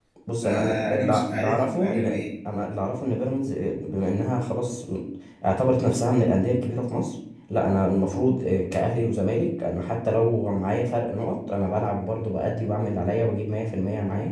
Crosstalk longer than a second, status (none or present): present